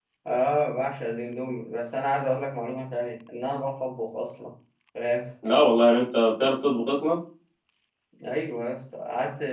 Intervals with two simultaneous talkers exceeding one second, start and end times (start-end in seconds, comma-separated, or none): none